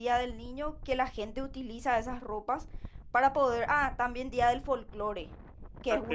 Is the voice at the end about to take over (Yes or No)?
No